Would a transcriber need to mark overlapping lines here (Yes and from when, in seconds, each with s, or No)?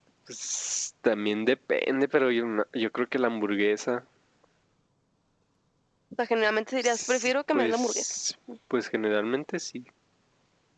Yes, from 6.8 s